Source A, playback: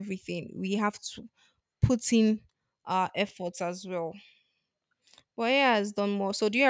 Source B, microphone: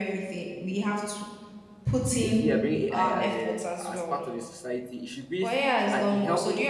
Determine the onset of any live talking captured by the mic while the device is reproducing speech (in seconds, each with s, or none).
2.2 s